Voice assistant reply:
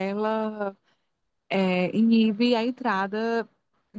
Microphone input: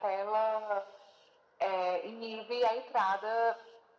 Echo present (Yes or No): Yes